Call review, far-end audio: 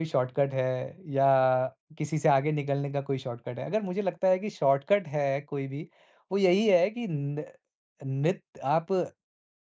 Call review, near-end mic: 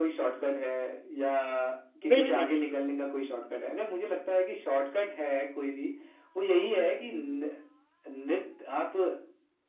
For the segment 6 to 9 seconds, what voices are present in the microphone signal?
echo only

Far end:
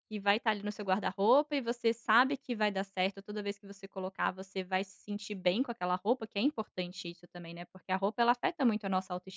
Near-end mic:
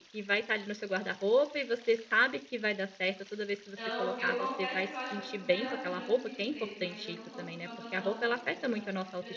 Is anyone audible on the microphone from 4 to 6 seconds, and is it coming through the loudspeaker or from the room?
both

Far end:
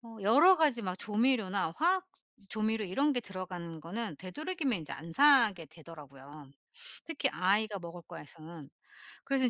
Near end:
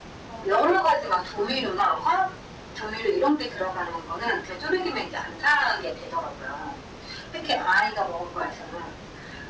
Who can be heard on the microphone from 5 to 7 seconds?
echo only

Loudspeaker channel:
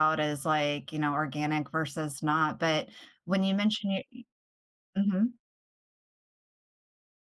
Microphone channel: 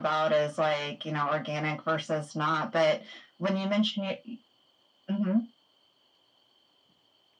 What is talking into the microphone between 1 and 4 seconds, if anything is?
echo only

